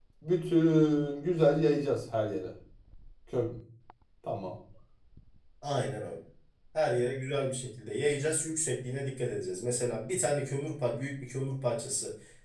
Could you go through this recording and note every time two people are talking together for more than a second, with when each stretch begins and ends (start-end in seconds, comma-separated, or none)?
none